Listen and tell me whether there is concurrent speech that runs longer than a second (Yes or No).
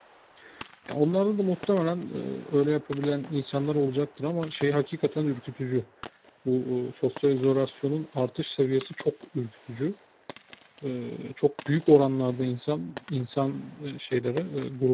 No